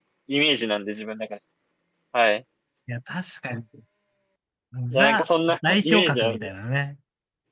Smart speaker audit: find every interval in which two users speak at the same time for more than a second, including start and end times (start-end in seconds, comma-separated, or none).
4.9-6.5